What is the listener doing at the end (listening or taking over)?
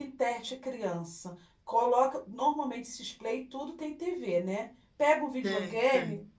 listening